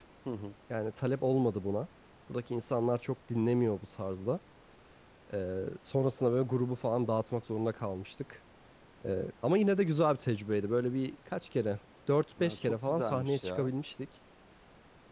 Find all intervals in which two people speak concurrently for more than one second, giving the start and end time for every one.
12.4-13.7

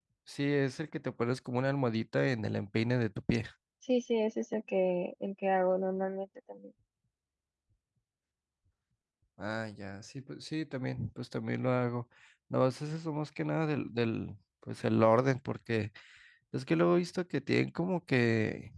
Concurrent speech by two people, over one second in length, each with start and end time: none

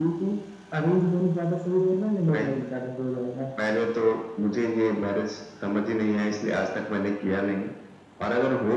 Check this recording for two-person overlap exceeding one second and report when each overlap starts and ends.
none

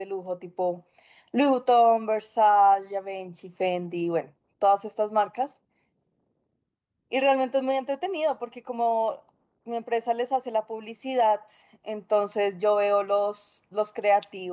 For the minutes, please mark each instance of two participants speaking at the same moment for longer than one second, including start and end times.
none

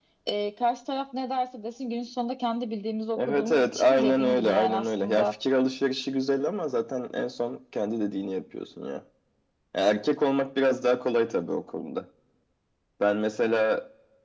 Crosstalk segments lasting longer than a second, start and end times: 3.2-5.3

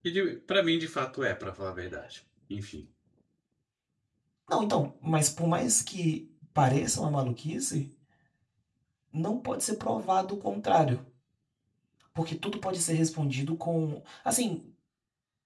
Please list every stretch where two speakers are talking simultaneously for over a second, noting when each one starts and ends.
none

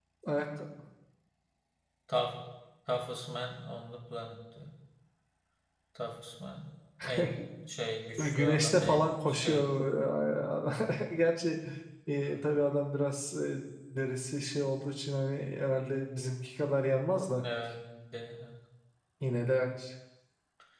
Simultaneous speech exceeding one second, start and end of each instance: 8.2-9.6

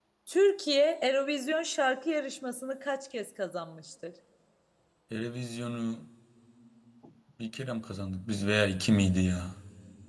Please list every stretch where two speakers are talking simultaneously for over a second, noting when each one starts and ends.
none

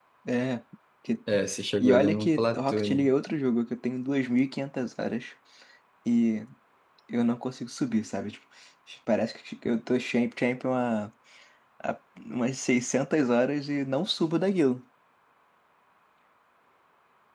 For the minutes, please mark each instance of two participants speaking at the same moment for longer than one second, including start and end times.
1.8-3.0

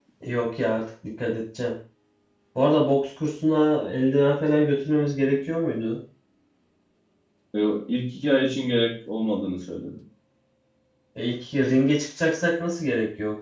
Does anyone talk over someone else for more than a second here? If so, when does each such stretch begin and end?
none

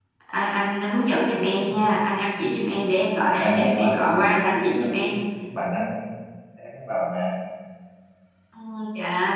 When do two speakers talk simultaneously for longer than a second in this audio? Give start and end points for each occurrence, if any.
3.4-5.1

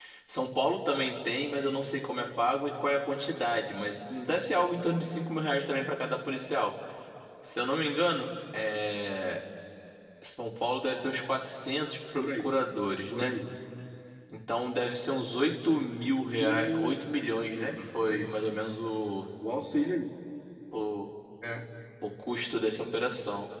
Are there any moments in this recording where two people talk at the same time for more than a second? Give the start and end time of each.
16.4-18.3

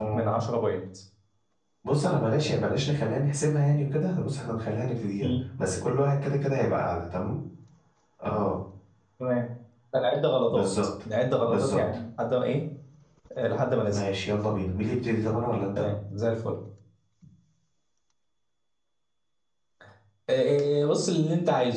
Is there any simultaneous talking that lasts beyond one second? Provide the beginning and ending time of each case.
none

